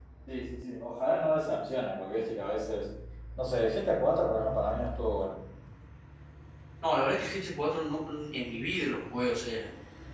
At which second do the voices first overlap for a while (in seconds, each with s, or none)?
none